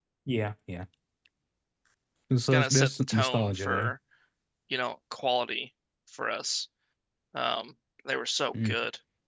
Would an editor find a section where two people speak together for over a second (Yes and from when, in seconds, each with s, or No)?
Yes, from 2.5 s